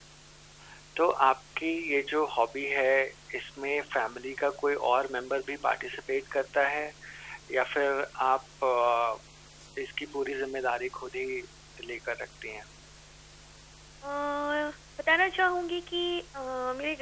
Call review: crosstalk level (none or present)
none